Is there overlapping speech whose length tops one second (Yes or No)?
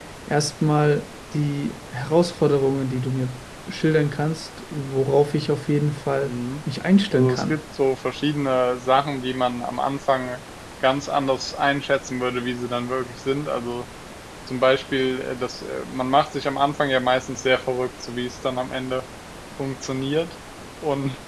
No